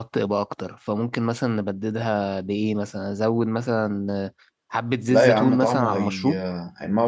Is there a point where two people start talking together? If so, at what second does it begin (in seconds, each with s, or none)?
5.1 s